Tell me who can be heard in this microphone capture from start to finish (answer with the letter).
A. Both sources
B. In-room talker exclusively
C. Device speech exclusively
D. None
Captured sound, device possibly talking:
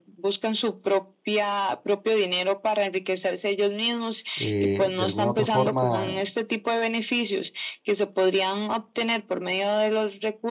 A